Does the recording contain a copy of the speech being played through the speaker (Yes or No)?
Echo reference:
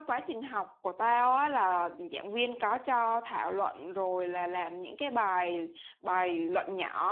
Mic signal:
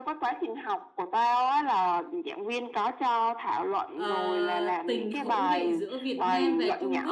Yes